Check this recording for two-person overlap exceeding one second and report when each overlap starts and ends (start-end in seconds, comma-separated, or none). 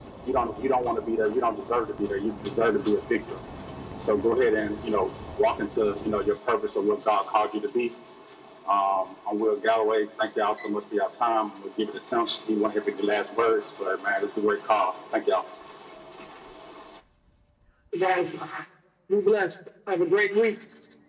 none